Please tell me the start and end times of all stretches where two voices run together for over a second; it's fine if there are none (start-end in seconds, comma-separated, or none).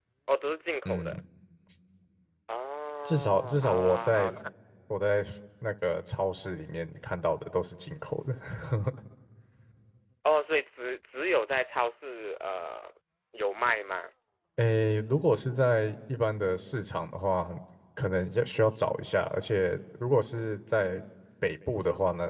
3.0-4.3